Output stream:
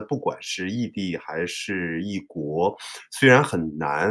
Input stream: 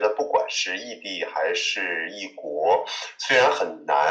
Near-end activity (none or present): none